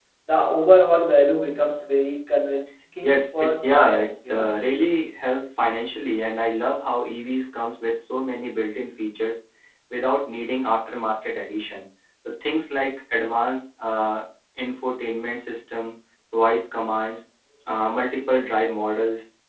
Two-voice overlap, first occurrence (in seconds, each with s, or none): 3.0 s